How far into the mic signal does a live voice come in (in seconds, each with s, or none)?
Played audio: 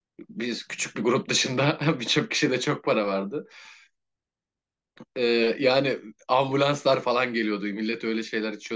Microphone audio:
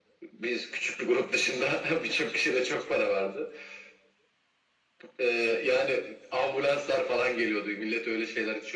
none